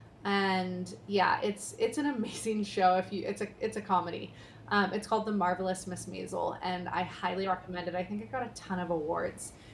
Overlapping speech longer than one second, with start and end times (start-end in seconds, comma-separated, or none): none